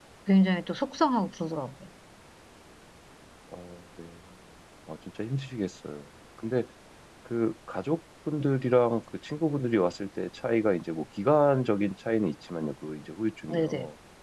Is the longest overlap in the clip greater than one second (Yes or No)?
No